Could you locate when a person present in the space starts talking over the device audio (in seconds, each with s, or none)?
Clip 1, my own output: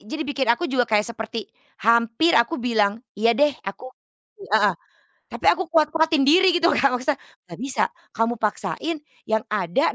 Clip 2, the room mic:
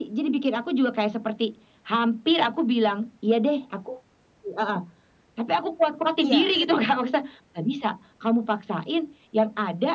6.2 s